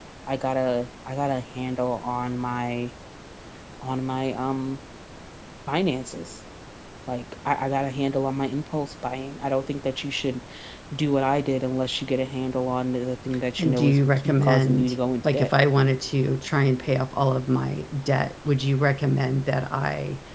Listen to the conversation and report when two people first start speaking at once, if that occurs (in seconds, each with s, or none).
13.6 s